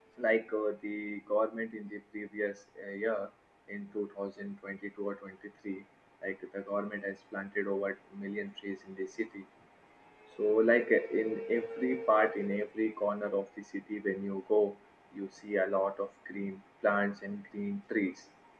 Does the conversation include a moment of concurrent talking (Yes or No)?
No